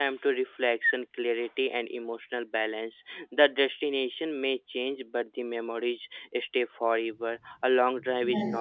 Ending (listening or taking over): listening